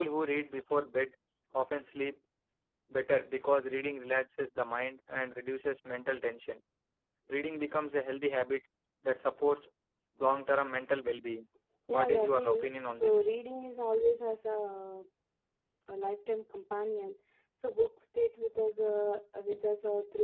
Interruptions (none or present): present